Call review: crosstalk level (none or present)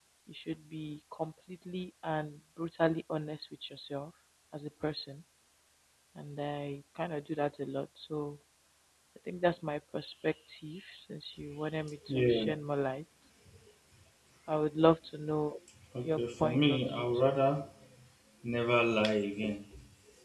present